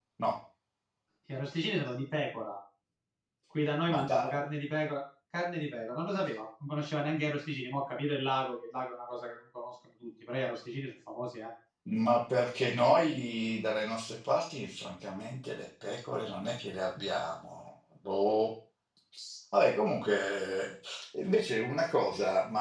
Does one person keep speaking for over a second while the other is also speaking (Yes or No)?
No